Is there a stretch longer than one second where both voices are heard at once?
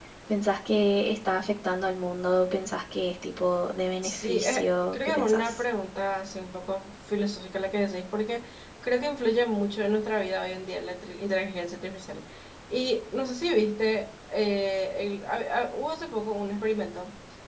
Yes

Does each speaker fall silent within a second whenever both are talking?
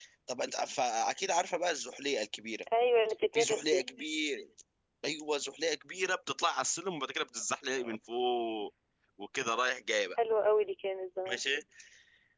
Yes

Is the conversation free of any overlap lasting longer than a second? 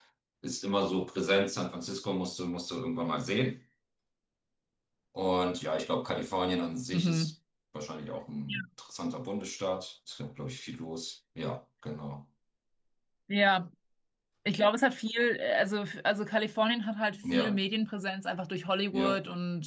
Yes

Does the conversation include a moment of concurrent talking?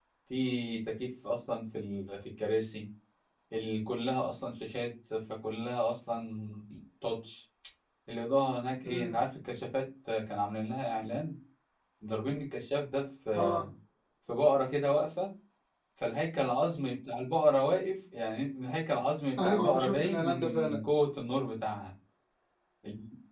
Yes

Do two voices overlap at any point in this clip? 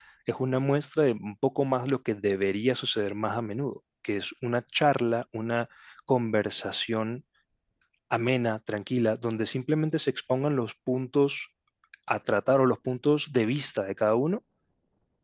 No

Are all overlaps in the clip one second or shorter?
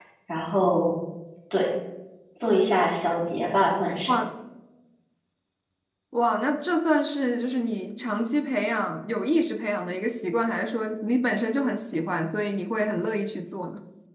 Yes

